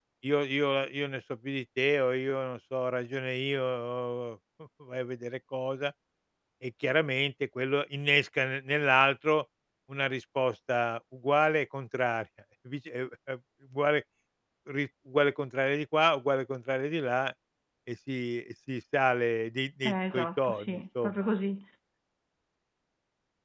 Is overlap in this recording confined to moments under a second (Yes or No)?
No